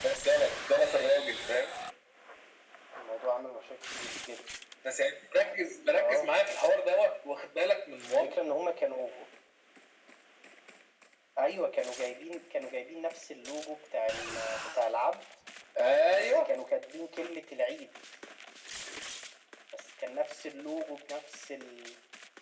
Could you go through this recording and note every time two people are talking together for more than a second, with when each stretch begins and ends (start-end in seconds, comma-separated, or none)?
none